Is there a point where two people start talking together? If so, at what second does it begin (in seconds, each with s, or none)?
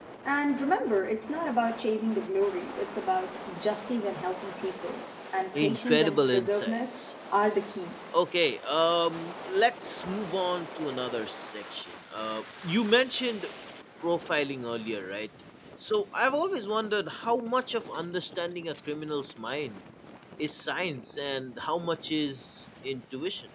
5.5 s